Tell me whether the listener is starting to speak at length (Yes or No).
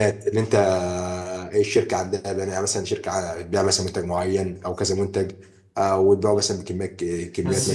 Yes